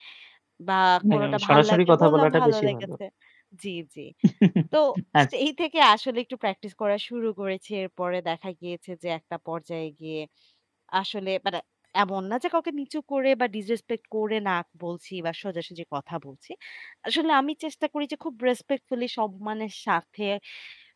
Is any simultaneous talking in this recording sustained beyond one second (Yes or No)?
Yes